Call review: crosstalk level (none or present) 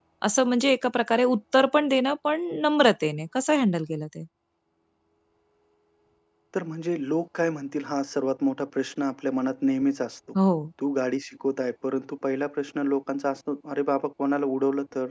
none